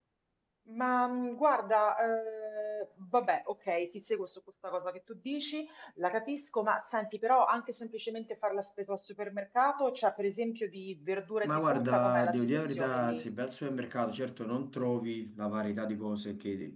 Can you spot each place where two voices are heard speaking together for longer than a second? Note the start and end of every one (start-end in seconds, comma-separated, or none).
11.4-13.2